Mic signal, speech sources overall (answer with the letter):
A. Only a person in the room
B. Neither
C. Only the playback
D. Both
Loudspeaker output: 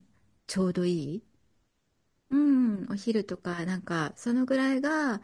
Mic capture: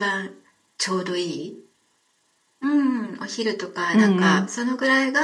D